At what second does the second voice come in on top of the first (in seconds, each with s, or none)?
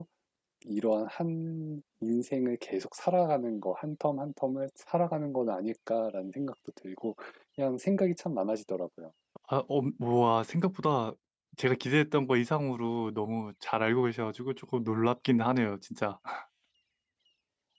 none